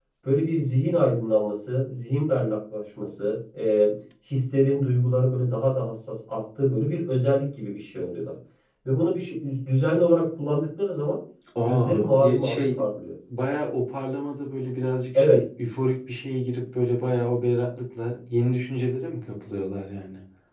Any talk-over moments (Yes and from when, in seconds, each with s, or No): Yes, from 11.6 s